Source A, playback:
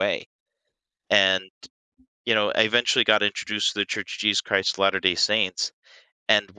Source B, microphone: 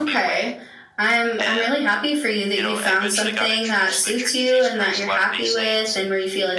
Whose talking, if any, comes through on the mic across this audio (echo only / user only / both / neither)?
both